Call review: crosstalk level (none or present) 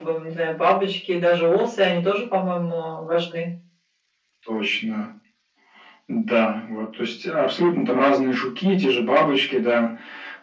none